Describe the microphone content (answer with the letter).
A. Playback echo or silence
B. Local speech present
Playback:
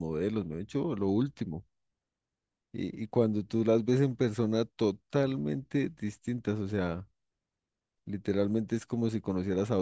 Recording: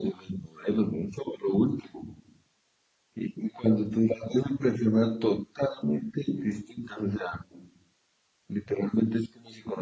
A